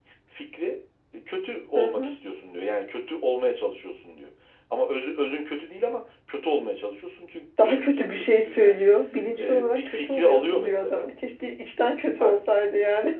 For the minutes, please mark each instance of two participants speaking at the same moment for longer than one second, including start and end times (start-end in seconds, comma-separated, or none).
7.6-8.8, 9.4-11.1